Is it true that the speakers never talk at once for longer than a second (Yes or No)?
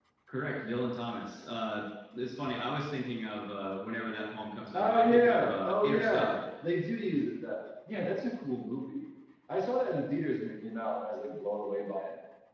No